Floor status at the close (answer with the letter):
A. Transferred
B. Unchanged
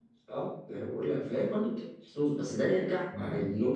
B